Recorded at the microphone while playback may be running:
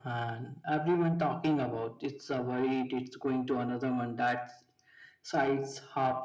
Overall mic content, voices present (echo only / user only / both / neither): echo only